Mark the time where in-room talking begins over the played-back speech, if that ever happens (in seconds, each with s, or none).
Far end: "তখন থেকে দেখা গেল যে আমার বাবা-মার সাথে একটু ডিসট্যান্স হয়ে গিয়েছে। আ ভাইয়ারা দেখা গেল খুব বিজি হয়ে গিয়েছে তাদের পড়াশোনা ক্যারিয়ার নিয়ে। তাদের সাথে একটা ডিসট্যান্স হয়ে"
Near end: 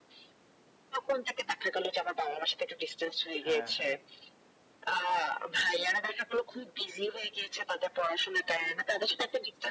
3.4 s